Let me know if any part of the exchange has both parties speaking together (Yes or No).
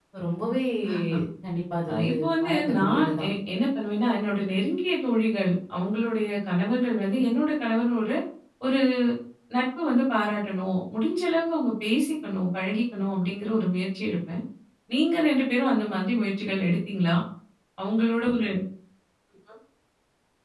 Yes